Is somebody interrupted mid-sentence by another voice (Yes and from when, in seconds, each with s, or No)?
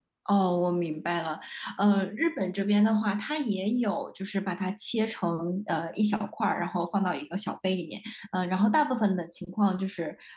No